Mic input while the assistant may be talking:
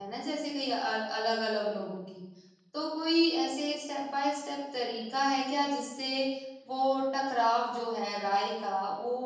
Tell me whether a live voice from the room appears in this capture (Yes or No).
Yes